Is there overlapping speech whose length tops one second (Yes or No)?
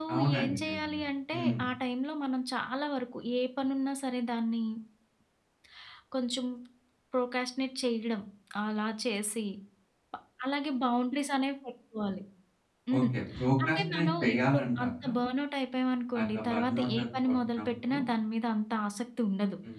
Yes